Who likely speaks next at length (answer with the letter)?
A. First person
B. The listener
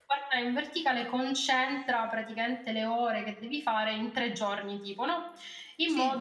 A